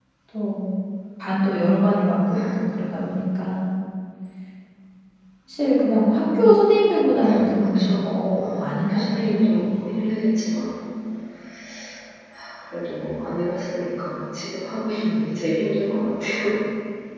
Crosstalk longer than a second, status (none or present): present